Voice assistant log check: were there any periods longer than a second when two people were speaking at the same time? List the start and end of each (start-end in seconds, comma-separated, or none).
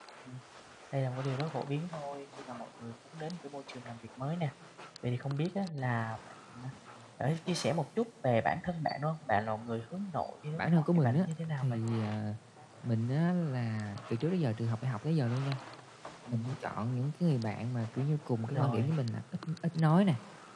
10.5-11.8